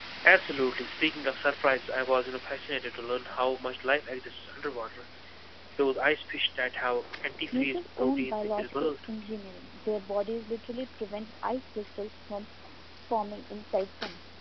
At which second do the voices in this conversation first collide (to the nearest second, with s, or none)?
8 s